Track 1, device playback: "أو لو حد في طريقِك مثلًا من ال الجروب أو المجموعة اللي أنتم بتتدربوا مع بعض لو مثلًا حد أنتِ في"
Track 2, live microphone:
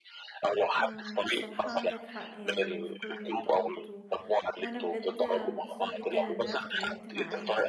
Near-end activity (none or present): present